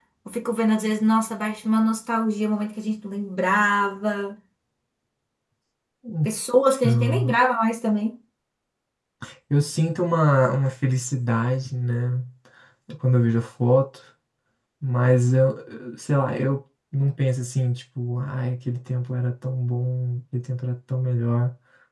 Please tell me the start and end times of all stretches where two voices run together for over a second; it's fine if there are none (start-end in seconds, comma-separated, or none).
none